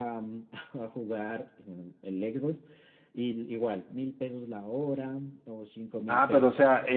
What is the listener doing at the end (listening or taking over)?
taking over